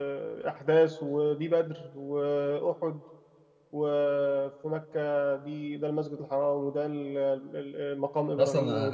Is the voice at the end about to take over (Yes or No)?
Yes